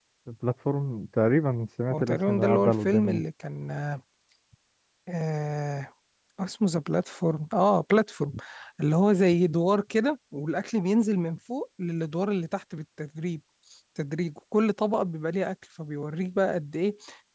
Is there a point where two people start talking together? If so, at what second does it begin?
2 s

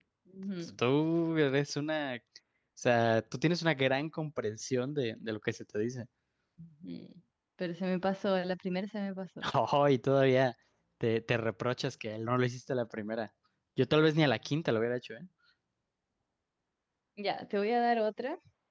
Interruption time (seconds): none

